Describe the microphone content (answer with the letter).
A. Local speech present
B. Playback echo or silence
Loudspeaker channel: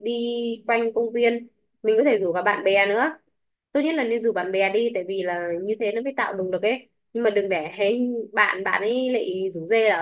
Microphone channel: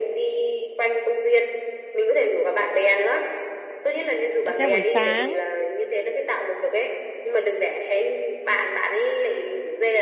A